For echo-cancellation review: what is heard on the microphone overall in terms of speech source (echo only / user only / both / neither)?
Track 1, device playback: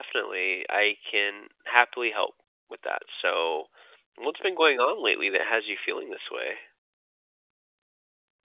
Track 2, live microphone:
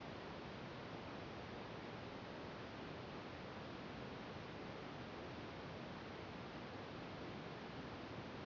neither